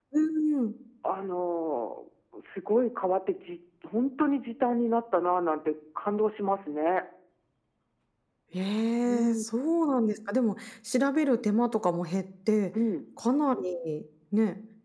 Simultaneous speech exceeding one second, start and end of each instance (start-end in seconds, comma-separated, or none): none